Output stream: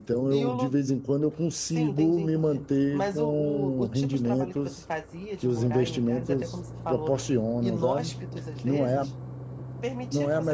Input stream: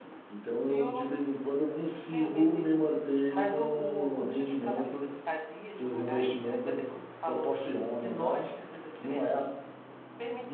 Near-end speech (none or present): none